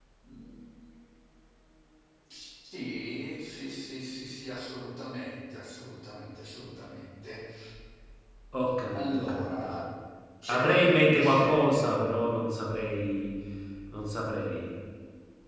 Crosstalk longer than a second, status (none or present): present